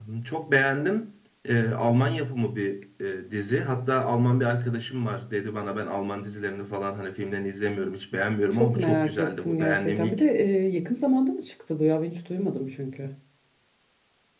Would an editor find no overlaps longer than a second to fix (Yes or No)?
No